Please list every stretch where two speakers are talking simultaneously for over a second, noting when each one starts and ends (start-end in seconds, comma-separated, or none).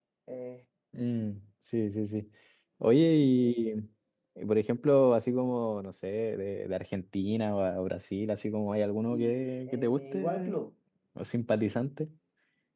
9.1-10.6